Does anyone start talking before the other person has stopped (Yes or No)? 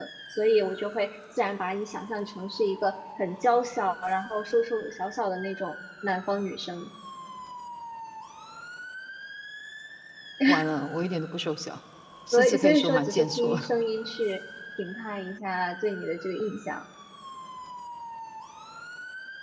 Yes